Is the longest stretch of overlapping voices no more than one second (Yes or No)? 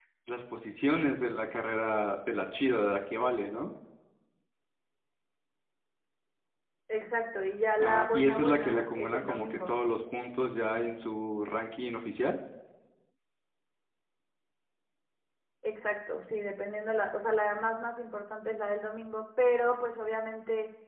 No